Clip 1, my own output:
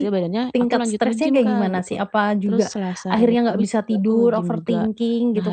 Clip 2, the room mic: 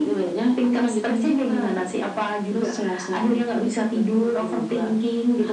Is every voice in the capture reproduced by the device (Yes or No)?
Yes